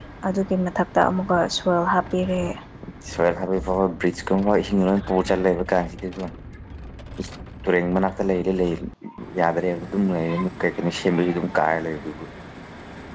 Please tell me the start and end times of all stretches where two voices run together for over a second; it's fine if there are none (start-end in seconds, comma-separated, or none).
none